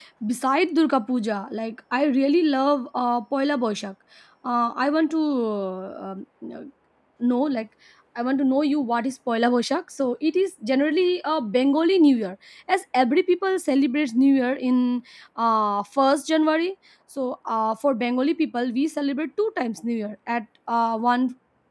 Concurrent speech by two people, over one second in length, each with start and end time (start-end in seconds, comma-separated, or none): none